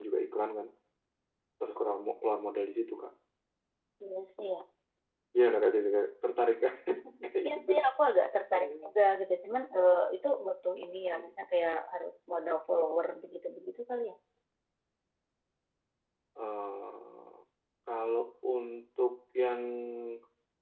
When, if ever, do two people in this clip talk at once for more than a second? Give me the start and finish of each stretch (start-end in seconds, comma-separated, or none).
none